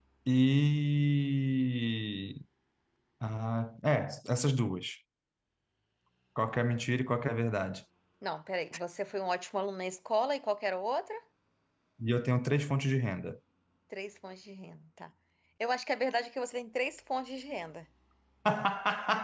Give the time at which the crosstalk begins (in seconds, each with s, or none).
none